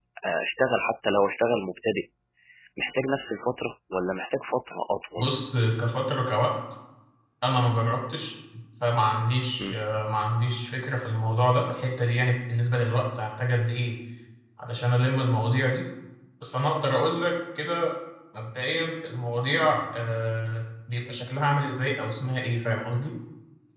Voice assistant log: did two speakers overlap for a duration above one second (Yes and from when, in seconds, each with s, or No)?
No